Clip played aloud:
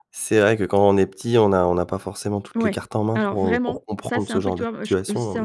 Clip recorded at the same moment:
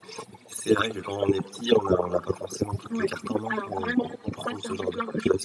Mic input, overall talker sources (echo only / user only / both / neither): echo only